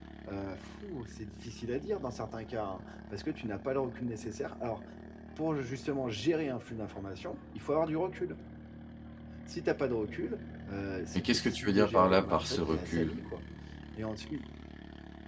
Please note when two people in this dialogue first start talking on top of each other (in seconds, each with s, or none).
11.2 s